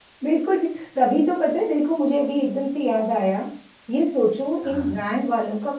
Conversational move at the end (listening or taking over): listening